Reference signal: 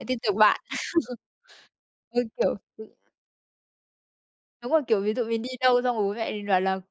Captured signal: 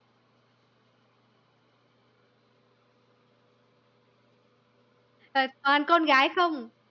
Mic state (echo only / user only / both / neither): user only